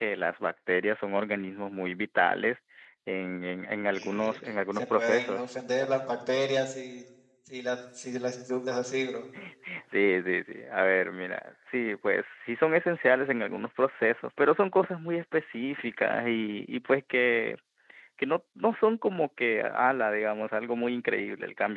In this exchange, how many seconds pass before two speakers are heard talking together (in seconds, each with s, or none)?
3.9 s